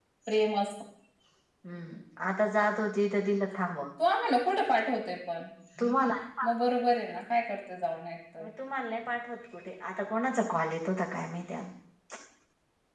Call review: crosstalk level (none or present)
none